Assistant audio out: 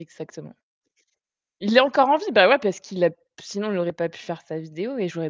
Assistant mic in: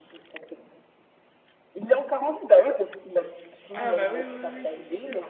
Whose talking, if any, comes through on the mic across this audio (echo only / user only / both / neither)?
both